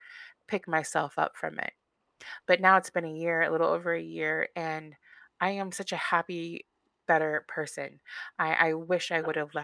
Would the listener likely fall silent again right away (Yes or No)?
Yes